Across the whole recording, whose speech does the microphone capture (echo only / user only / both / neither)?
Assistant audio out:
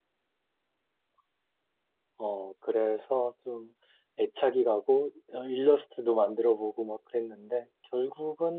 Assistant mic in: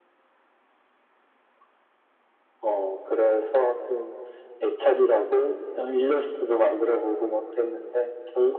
echo only